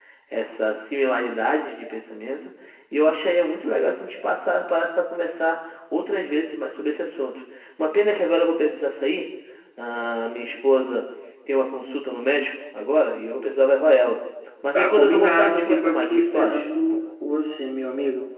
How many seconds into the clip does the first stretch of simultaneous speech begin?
14.8 s

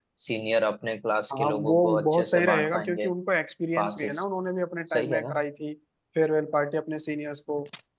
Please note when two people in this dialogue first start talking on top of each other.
1.3 s

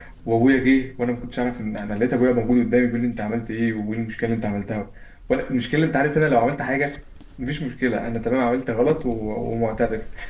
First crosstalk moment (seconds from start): none

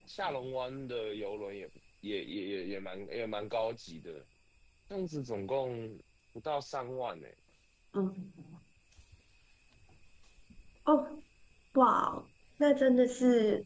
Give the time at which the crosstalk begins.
none

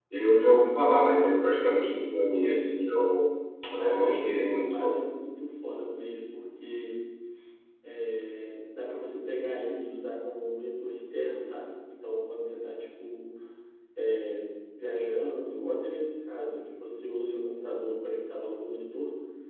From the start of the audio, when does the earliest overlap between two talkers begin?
3.8 s

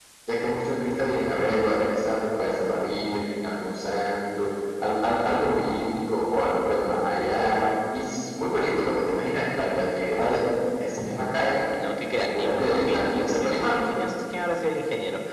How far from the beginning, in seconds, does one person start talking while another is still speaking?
12.2 s

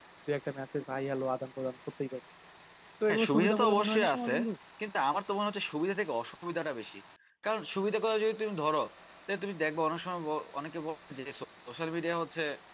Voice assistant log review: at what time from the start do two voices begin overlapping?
3.1 s

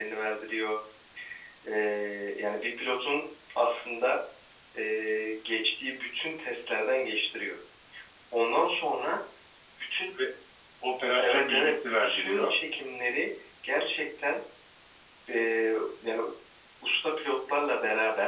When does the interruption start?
11.2 s

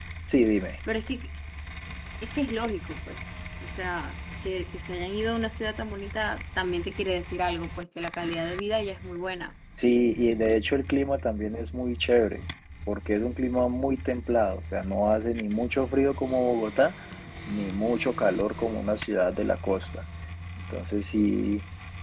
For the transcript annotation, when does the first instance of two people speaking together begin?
none

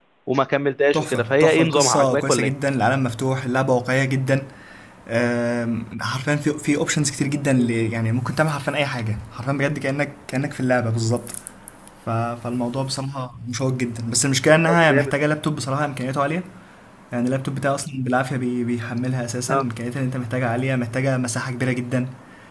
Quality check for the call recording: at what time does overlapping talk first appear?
0.9 s

